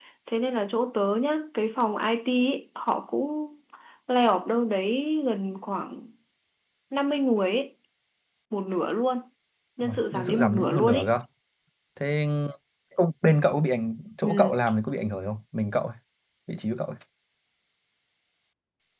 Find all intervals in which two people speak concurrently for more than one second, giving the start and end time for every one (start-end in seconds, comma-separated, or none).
9.8-11.1